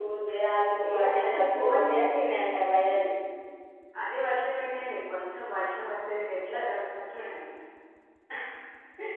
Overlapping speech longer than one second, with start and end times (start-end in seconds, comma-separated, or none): 0.9-2.3